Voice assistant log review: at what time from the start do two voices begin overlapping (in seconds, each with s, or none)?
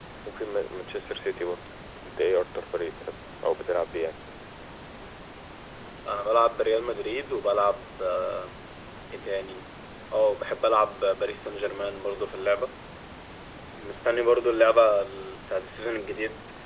none